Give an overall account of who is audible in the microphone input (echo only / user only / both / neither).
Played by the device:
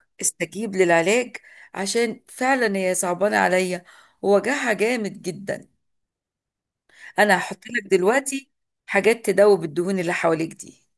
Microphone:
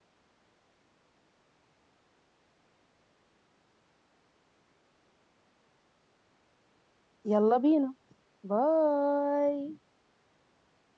user only